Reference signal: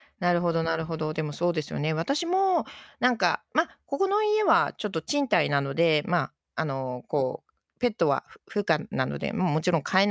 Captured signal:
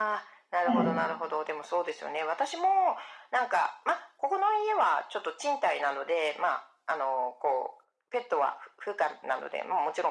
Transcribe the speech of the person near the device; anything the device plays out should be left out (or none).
ええ。